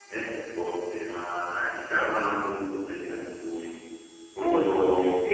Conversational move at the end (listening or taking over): taking over